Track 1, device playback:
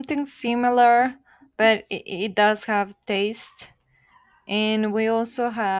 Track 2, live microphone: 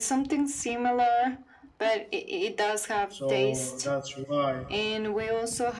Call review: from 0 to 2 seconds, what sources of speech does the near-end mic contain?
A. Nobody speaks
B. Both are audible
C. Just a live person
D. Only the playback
D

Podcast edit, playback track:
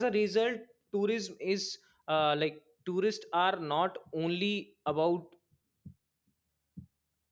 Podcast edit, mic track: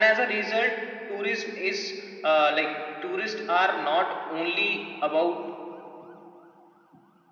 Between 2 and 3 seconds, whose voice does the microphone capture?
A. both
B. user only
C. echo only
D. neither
C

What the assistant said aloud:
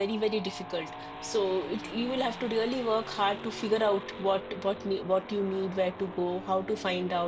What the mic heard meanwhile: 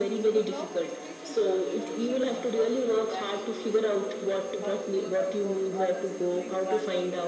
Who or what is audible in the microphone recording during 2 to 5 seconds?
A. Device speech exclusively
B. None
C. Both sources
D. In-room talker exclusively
C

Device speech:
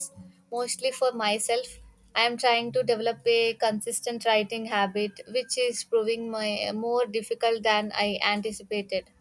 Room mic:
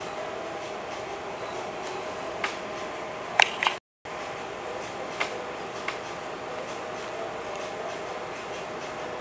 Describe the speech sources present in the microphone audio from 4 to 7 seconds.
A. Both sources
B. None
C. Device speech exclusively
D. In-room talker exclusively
B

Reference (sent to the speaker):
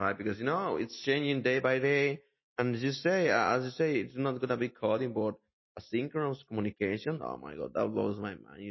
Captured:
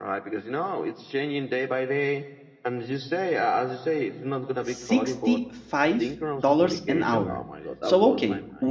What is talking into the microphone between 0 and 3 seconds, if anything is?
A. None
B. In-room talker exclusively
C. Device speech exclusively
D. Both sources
C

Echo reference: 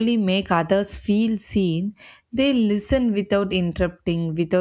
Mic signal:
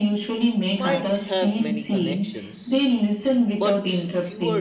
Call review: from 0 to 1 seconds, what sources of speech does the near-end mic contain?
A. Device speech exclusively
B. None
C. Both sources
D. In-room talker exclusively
C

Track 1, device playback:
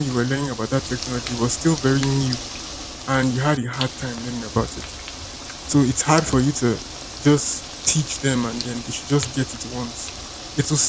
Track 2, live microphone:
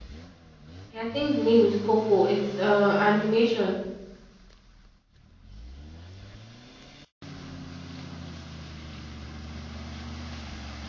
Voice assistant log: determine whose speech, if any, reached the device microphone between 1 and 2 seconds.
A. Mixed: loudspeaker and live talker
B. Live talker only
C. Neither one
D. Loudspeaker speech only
B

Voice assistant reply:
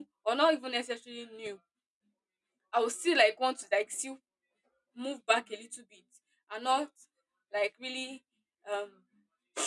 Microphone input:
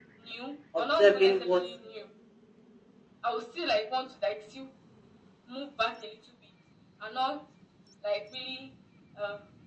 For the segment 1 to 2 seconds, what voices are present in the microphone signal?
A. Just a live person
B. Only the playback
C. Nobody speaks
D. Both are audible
D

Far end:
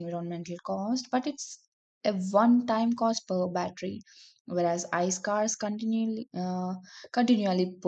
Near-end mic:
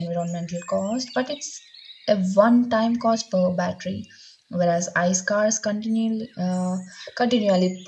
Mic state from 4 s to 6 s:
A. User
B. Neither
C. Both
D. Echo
D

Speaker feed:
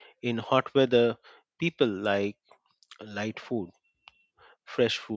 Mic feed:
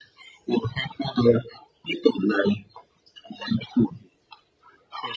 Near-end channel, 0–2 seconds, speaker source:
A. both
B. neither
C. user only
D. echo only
D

